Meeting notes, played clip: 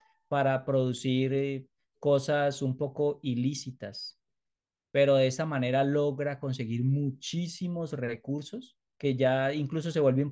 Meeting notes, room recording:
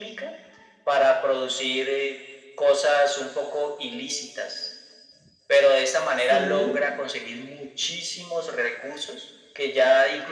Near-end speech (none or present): present